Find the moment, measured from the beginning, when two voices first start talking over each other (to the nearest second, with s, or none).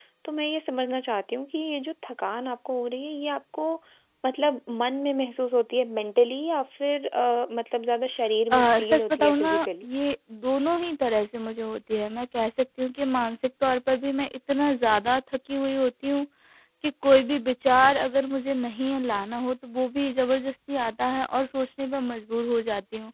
9 s